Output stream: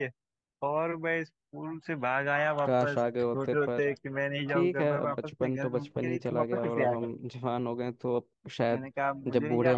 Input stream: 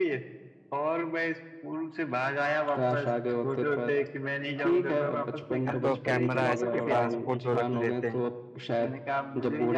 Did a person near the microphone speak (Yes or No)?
Yes